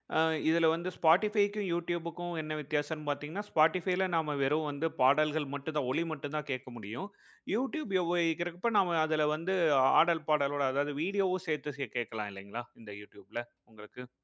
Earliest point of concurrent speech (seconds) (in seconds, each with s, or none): none